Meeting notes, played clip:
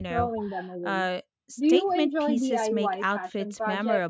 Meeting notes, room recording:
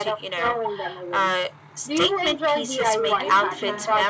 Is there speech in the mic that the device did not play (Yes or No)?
Yes